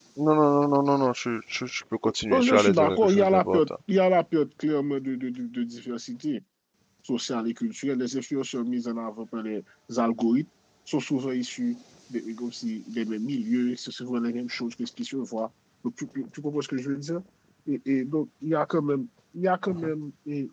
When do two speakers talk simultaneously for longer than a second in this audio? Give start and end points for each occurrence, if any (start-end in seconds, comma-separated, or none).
2.3-3.7